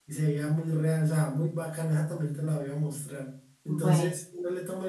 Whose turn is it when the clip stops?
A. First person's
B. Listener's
A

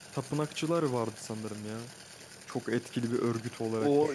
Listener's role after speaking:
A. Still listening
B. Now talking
B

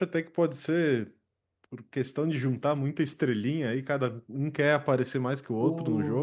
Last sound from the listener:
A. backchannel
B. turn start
A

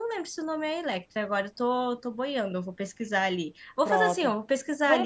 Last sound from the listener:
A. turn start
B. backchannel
A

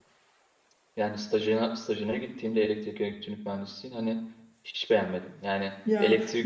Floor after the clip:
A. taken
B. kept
B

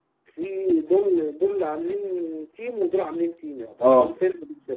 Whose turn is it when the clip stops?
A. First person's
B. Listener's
A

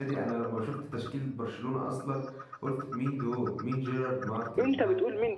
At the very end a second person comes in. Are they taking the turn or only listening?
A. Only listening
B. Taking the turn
B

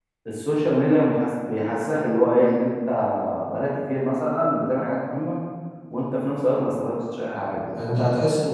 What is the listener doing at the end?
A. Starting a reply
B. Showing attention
A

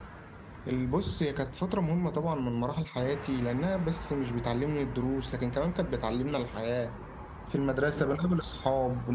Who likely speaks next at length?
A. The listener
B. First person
B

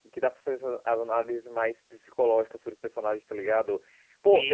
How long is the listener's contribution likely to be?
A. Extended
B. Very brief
B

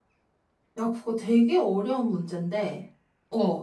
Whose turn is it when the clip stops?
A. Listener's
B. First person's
B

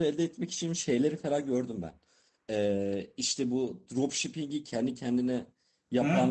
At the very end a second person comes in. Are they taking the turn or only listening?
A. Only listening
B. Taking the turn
B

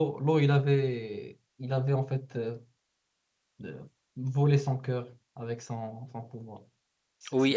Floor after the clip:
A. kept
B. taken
B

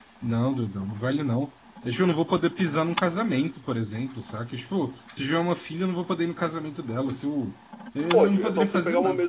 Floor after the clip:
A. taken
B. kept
A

